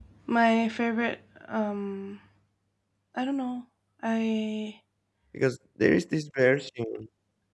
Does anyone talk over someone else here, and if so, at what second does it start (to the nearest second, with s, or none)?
none